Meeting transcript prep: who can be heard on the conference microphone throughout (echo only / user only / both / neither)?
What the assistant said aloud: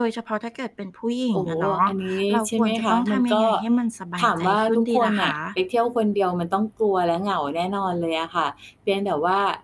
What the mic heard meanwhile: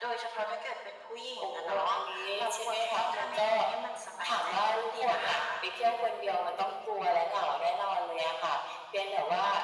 echo only